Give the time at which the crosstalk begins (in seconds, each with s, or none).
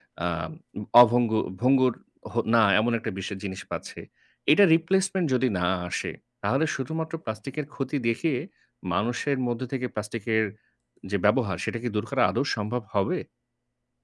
none